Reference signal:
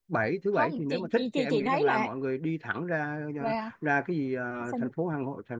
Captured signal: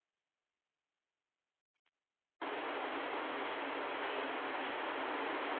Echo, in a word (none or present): none